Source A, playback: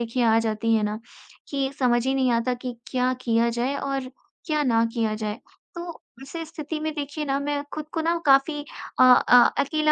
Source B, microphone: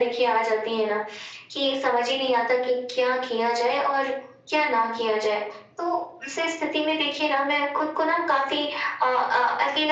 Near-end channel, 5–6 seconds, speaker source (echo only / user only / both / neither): echo only